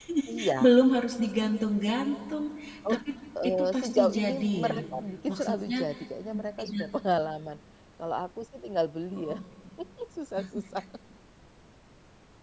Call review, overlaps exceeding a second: present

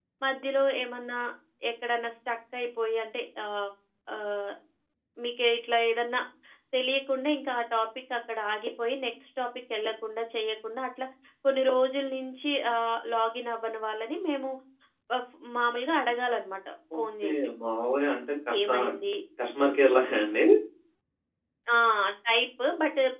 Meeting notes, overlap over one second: none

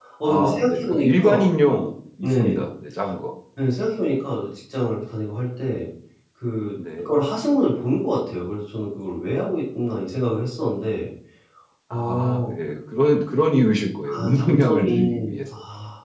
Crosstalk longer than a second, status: present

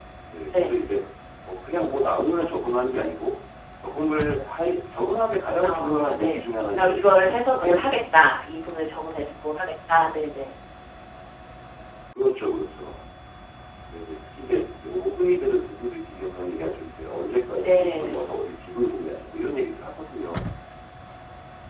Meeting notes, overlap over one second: present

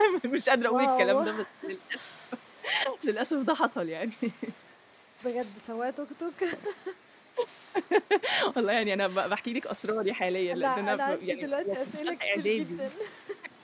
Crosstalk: present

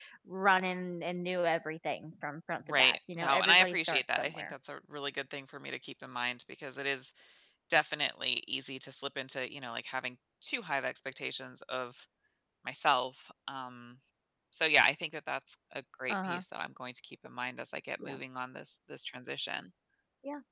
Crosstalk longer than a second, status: present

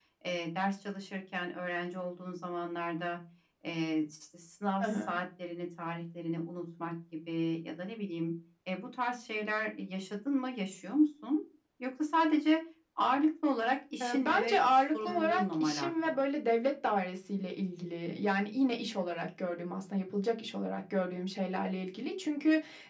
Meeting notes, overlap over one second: present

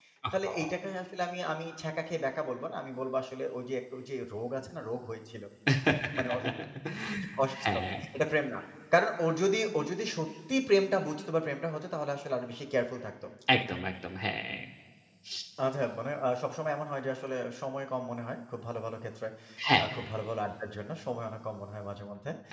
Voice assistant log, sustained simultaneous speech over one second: none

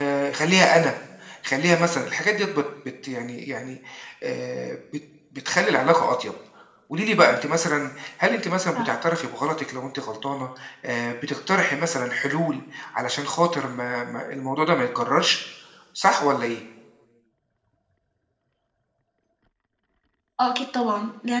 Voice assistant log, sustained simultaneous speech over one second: none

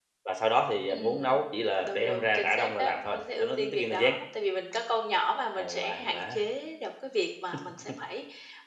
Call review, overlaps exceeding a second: present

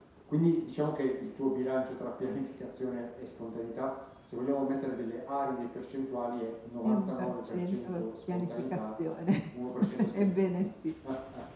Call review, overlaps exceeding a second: present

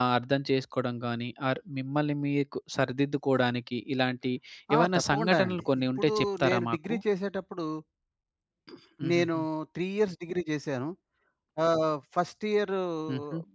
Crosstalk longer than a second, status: present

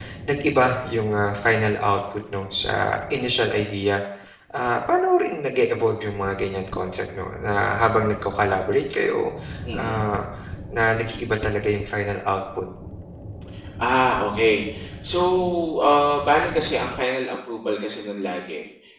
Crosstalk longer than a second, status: none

